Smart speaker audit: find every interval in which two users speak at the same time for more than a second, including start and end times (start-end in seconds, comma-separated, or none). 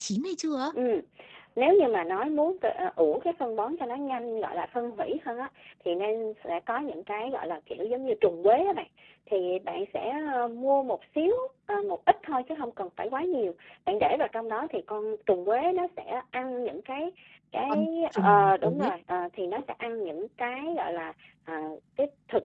17.7-18.9